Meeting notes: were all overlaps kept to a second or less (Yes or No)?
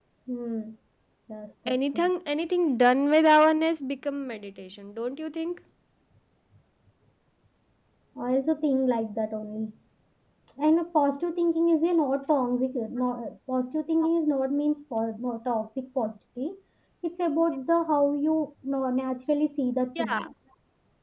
Yes